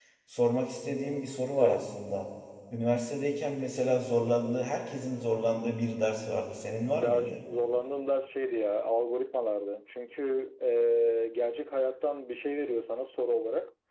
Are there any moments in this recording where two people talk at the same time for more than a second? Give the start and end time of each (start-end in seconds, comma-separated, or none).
none